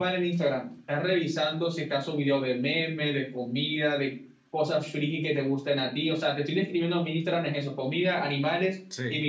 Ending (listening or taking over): listening